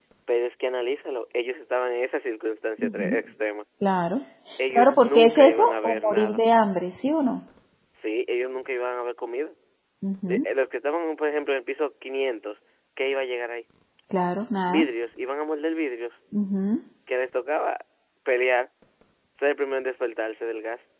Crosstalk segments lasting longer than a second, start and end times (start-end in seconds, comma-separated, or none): 4.7-6.4